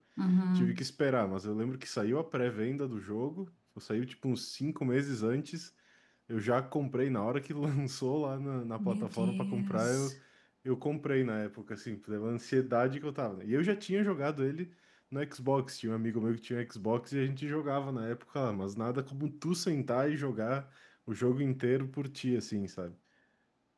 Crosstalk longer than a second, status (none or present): present